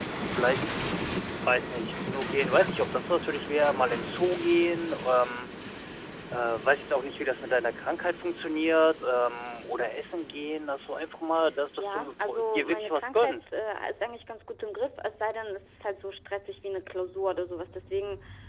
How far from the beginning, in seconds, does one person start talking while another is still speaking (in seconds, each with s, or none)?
11.8 s